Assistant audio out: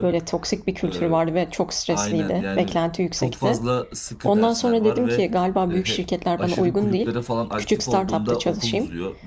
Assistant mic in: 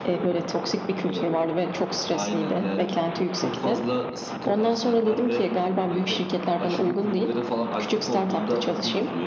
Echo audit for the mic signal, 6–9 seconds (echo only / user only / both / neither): echo only